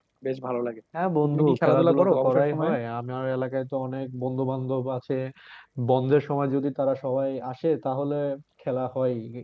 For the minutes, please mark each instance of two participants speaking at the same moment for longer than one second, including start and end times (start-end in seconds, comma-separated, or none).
1.2-2.7